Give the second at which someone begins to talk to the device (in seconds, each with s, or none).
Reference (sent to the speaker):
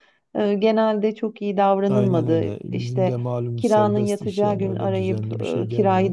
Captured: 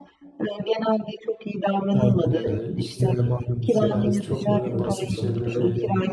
2.3 s